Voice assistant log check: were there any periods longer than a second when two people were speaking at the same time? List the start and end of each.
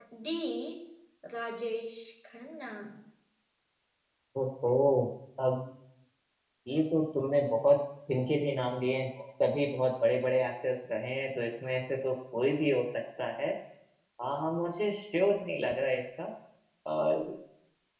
none

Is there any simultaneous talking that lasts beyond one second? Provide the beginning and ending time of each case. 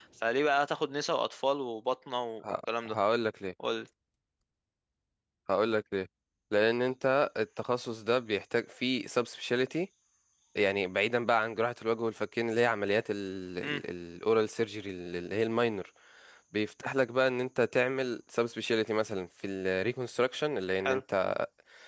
none

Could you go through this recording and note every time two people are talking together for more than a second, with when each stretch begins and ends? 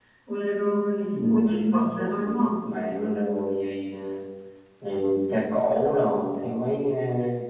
1.1-2.3

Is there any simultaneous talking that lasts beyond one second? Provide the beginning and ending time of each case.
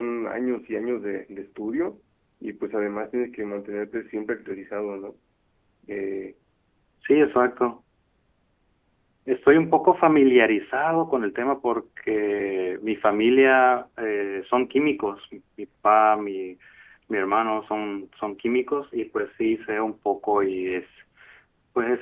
none

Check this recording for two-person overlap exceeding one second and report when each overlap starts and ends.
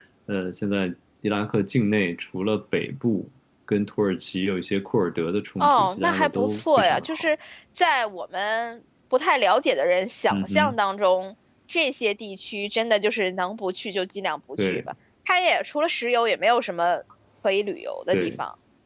5.6-7.3

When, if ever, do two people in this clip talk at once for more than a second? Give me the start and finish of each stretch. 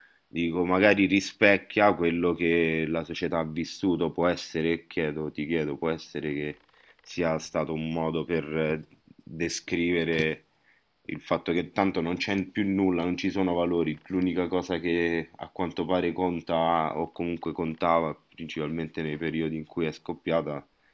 none

